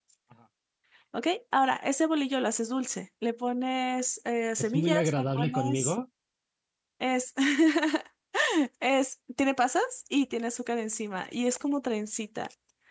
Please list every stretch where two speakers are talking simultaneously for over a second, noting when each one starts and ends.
4.6-5.9

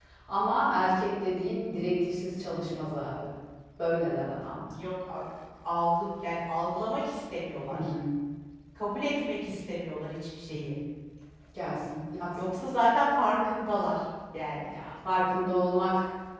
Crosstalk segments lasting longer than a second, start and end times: none

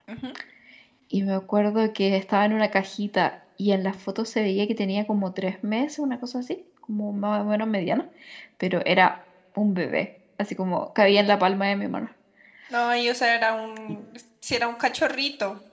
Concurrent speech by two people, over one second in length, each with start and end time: none

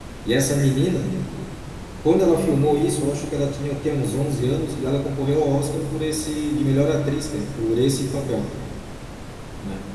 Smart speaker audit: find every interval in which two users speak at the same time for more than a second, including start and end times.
none

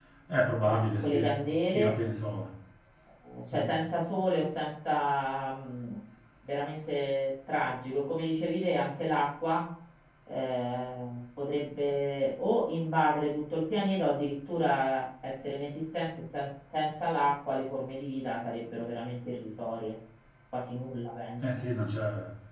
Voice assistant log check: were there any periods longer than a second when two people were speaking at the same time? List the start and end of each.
0.6-1.9

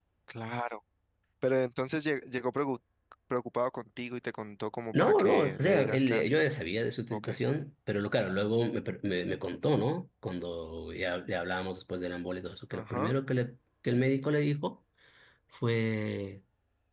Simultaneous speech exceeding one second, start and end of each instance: 4.9-6.5

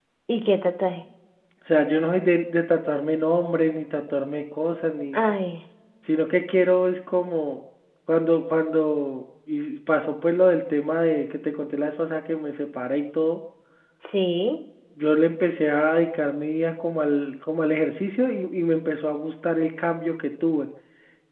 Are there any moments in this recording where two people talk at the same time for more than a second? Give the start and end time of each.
none

